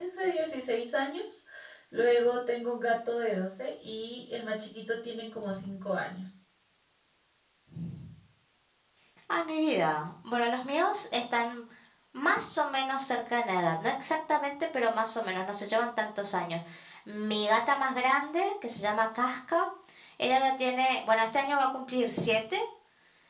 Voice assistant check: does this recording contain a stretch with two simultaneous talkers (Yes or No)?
No